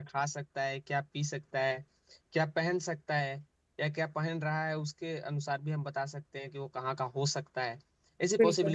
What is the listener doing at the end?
listening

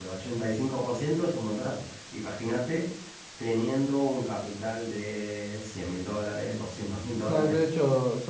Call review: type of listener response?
taking over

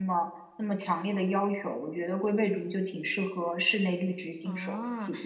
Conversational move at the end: taking over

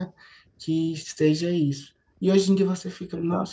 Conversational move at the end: listening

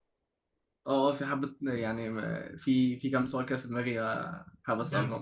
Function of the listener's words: taking over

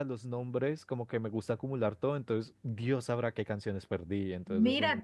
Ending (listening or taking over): taking over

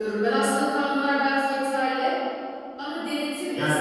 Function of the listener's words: listening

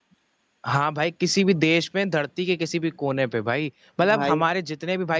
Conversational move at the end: listening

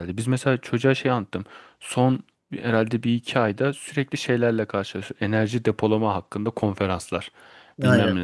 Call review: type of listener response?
listening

